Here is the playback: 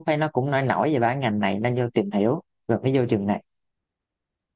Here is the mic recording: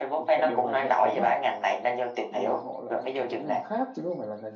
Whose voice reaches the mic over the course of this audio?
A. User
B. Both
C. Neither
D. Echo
B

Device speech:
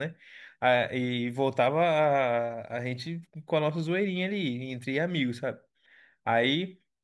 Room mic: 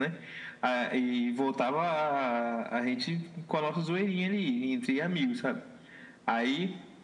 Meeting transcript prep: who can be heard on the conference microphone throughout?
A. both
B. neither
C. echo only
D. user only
C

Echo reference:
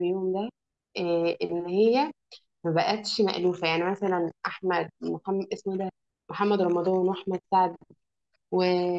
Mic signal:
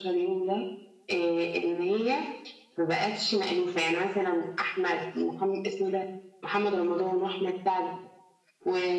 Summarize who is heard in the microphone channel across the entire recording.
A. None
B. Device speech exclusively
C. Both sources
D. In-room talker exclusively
B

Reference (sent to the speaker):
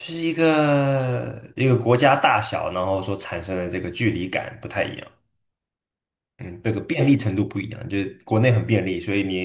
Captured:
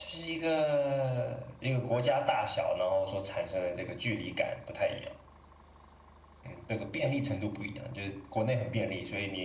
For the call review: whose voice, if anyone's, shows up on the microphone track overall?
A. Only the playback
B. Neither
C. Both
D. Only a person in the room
A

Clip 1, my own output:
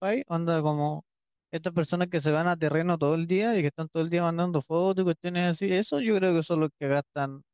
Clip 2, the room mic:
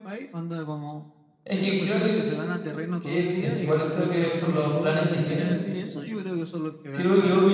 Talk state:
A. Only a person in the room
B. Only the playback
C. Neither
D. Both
D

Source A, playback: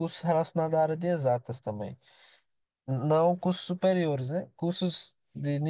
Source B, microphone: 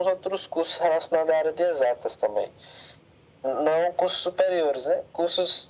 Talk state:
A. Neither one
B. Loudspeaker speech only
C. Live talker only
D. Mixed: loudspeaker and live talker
B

